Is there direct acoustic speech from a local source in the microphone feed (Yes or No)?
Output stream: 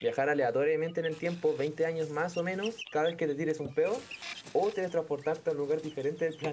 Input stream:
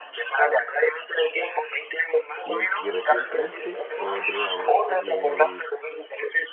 Yes